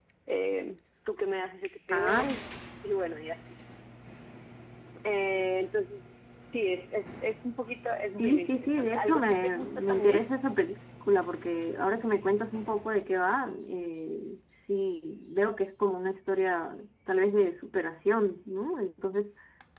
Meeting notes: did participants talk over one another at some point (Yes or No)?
Yes